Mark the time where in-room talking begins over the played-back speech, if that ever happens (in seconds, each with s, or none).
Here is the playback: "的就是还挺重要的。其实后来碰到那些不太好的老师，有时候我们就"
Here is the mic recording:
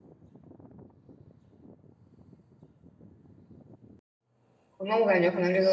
4.8 s